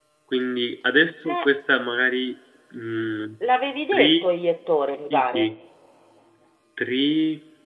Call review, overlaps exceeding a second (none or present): none